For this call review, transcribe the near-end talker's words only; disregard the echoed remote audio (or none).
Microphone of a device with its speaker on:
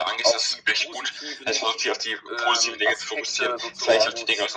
none